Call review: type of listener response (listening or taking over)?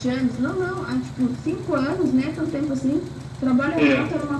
listening